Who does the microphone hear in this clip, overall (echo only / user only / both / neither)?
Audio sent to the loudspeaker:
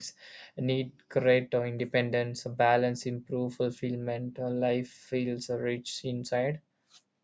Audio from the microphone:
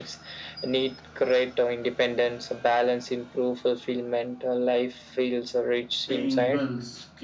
both